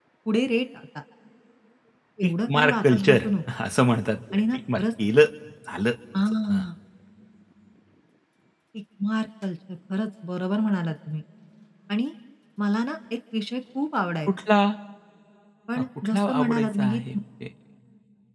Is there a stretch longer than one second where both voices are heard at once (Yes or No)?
Yes